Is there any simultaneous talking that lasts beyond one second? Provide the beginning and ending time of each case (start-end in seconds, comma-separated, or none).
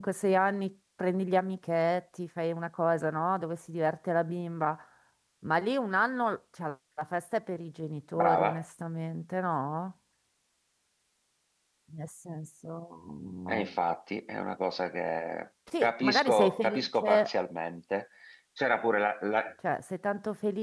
15.8-17.3